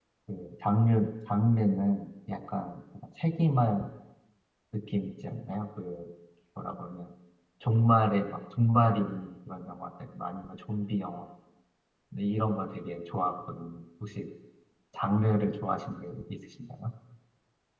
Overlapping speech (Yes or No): No